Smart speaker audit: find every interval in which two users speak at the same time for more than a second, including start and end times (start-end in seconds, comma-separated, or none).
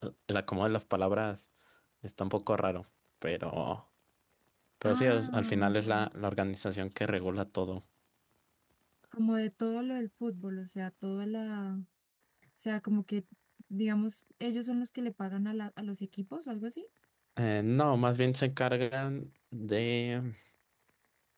4.8-6.1